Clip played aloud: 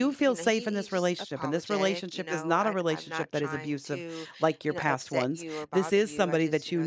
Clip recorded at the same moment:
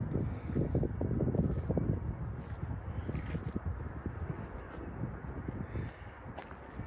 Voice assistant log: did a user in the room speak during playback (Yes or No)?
No